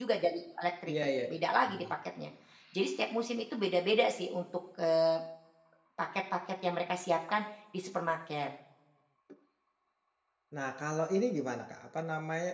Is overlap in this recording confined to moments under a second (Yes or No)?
Yes